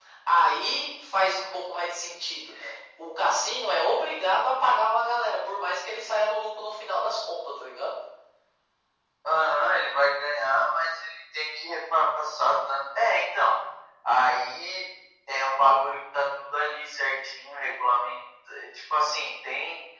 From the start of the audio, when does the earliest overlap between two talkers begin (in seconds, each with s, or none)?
none